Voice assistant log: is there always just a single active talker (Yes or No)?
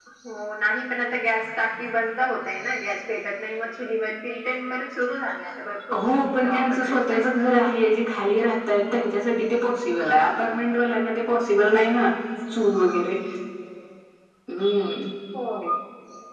No